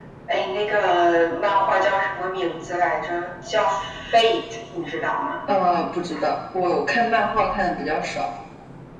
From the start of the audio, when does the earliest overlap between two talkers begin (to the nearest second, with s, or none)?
none